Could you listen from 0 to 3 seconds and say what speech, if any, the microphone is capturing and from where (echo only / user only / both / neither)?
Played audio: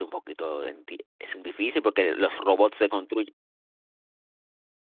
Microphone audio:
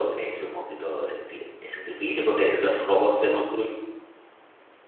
echo only